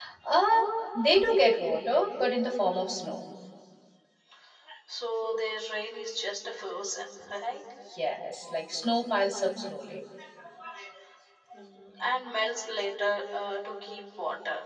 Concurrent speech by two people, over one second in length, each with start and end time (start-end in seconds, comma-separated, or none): none